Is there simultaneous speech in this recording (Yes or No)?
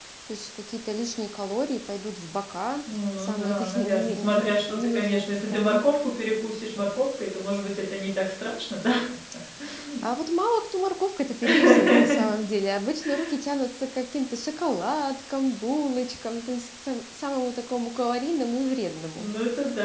Yes